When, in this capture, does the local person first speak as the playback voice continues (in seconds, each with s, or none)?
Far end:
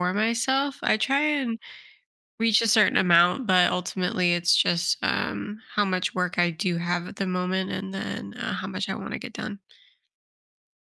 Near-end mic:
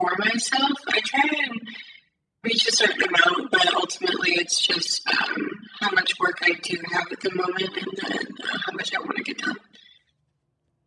none